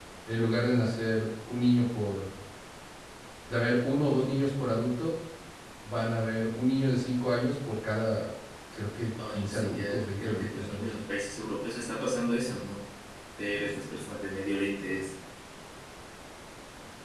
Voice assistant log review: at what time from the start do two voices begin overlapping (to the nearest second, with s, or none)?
9 s